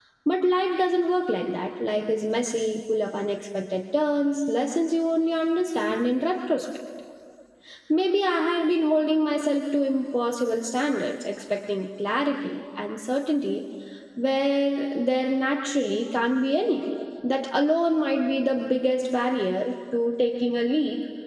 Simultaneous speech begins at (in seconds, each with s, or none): none